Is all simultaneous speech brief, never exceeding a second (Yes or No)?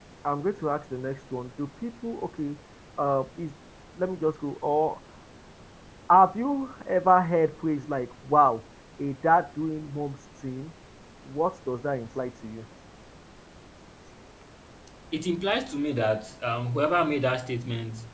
Yes